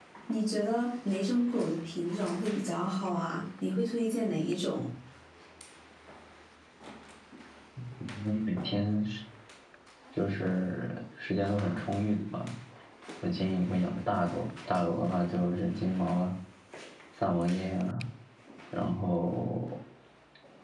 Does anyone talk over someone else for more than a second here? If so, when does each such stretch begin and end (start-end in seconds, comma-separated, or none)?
none